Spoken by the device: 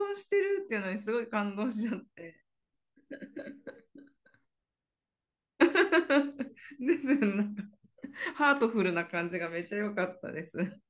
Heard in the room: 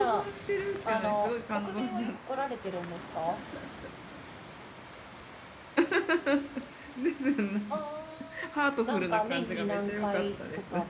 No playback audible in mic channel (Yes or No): No